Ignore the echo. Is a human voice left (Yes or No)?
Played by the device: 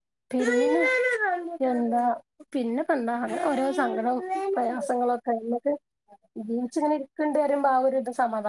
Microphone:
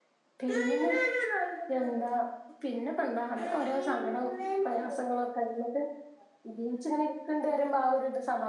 No